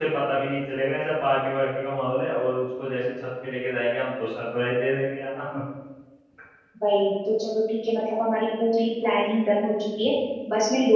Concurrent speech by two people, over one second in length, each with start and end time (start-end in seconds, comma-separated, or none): none